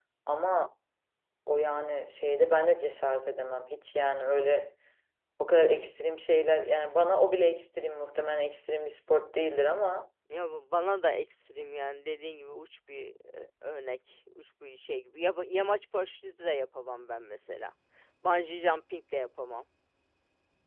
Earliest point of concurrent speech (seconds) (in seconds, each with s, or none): none